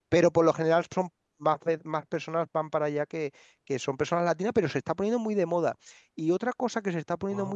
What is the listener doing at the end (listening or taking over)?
listening